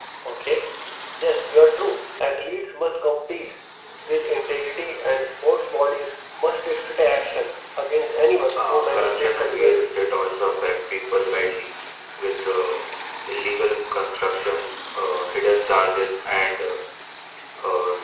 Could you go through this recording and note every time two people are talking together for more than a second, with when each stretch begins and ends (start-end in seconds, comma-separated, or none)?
8.6-9.9